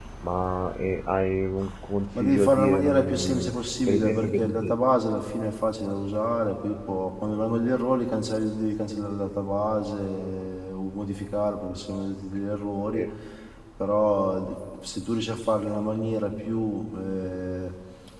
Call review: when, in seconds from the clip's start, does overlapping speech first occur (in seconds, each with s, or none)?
2.1 s